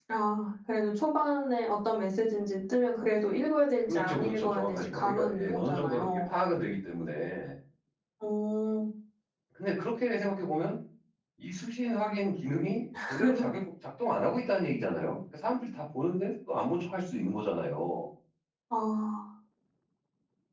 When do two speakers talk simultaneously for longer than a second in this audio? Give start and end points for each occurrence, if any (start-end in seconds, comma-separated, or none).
3.9-6.2